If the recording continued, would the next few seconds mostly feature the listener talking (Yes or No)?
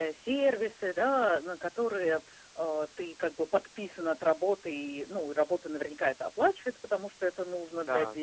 No